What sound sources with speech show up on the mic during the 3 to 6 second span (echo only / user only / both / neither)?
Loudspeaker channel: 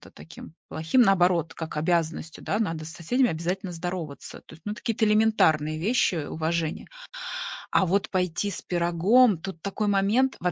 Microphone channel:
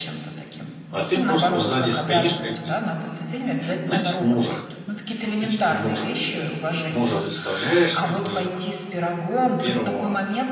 both